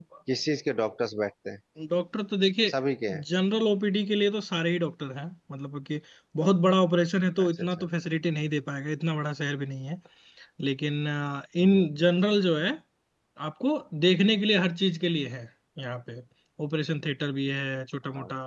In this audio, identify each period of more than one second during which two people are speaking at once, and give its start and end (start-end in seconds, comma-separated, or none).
none